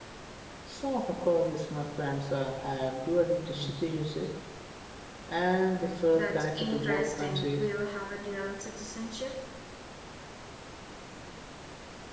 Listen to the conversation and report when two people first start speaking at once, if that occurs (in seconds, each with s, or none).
6.1 s